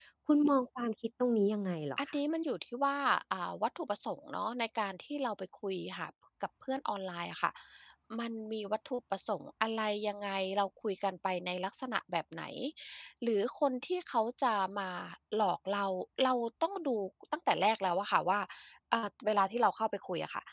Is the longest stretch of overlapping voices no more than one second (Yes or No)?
Yes